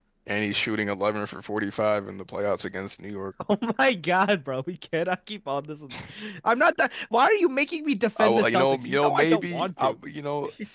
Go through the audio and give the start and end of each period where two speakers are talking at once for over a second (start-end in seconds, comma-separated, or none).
8.2-10.0